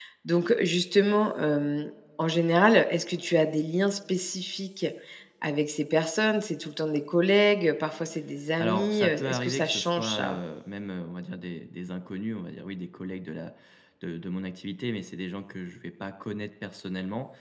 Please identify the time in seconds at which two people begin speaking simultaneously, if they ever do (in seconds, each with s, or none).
8.6 s